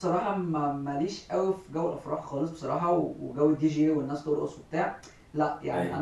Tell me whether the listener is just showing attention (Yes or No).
Yes